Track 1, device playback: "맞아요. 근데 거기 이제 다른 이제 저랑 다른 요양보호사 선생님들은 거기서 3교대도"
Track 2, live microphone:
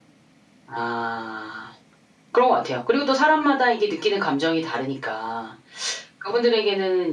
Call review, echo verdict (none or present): none